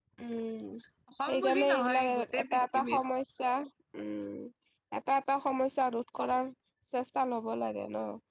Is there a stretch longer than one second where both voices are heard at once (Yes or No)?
Yes